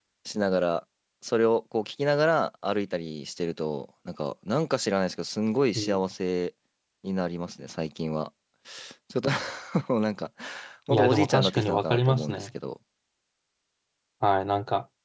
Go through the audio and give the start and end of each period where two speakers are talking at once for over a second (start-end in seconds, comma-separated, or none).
10.9-12.5